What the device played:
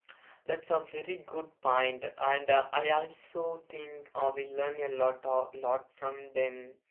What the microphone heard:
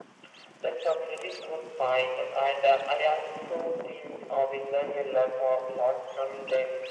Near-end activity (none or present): none